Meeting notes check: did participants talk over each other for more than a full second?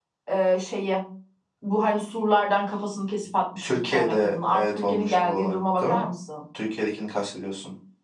Yes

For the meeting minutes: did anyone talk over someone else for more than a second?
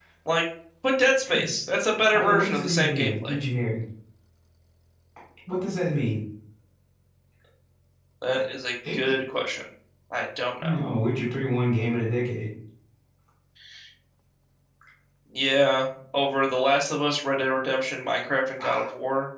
Yes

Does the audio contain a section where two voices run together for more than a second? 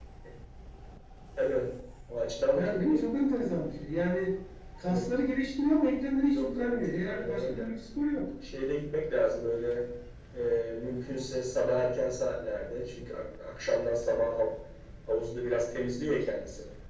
Yes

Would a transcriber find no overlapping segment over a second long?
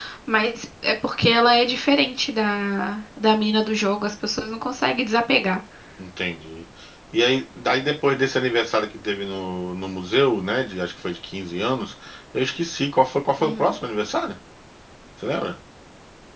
Yes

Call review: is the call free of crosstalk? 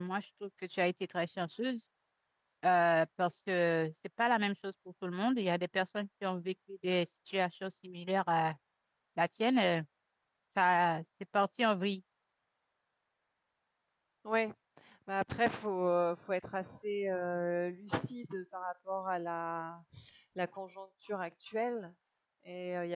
Yes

